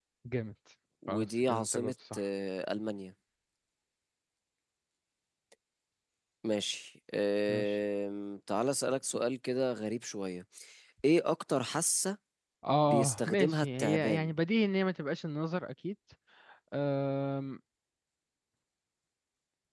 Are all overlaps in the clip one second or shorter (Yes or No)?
No